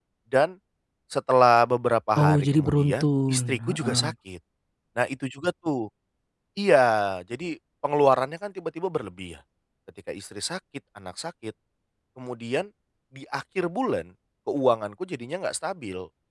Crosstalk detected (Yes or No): Yes